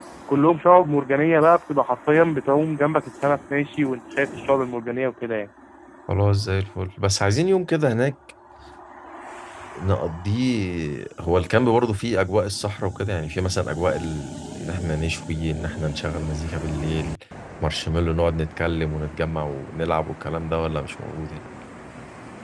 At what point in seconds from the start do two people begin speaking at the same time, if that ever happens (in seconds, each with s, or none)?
none